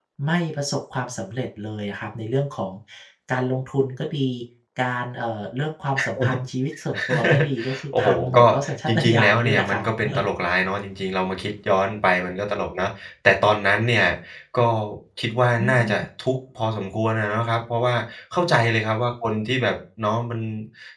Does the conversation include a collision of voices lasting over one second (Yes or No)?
Yes